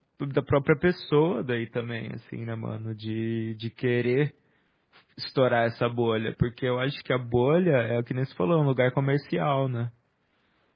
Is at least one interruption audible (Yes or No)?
No